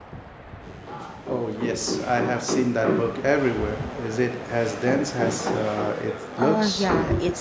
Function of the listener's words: taking over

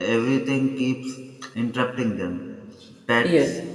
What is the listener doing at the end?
listening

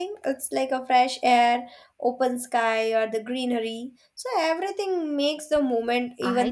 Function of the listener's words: taking over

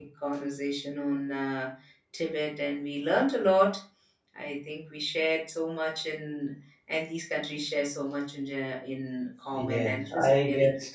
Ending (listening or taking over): taking over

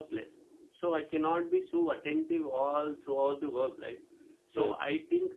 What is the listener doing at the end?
listening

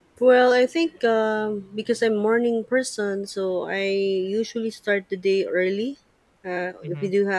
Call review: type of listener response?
listening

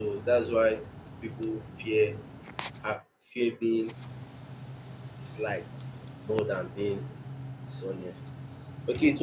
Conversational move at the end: listening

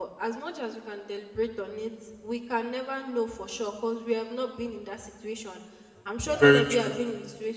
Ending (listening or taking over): listening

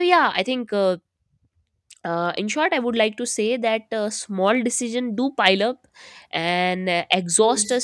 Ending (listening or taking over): listening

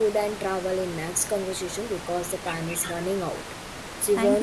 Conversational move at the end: taking over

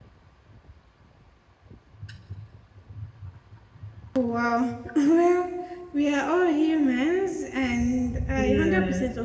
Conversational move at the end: listening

